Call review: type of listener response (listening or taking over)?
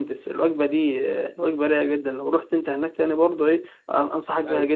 listening